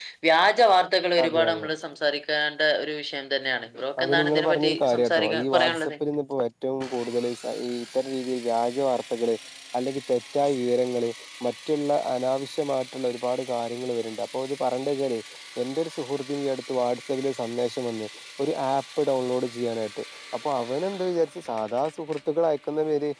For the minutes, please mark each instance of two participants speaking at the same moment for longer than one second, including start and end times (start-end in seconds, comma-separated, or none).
4.0-5.9